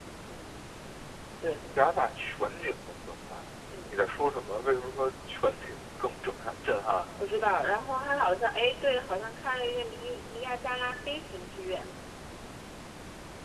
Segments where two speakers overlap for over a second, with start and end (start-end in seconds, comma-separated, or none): none